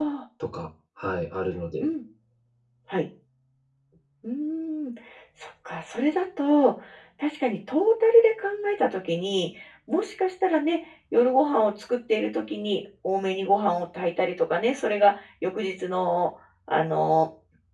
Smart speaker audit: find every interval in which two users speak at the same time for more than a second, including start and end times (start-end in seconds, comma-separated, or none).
none